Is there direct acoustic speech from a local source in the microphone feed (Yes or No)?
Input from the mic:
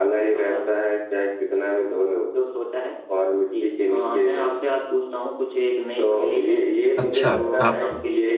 Yes